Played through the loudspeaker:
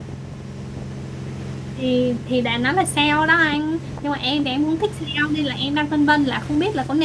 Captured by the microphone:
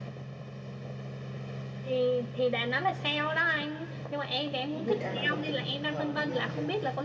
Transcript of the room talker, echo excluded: không biết em đã gặp từng trường hợp như này chưa

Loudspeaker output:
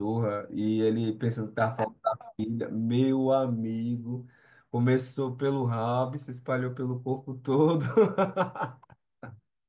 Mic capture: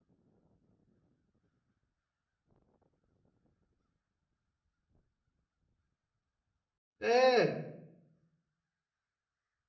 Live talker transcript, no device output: É,

